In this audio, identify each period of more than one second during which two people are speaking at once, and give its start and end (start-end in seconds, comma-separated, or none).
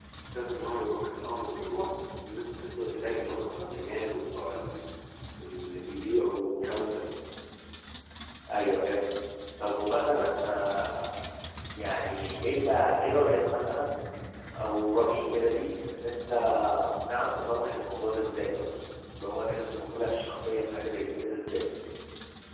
none